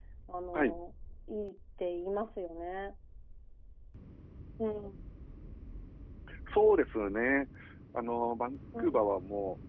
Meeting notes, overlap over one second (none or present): none